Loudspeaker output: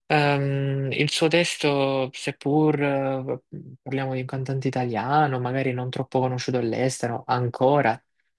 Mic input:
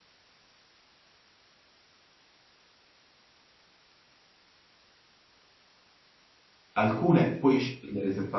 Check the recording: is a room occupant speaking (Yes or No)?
Yes